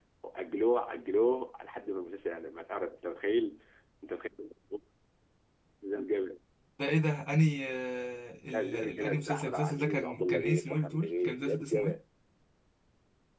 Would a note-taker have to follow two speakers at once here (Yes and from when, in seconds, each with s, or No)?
Yes, from 8.5 s